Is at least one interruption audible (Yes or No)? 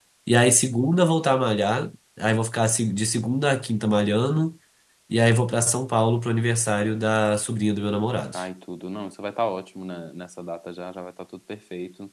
No